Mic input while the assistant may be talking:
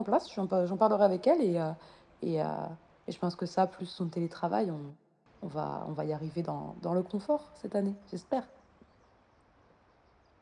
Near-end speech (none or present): present